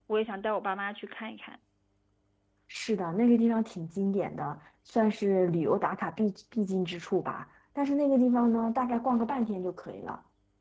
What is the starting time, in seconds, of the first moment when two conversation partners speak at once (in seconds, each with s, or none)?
none